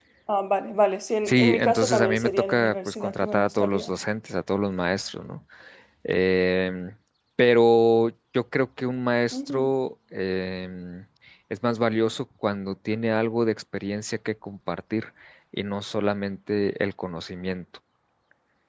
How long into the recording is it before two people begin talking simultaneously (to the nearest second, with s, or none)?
1 s